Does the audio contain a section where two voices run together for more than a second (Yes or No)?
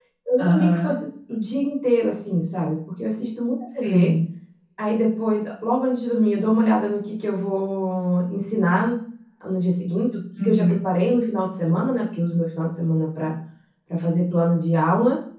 No